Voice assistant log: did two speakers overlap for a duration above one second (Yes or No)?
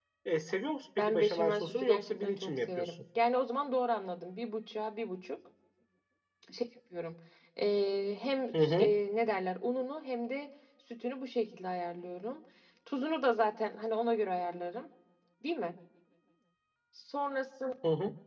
Yes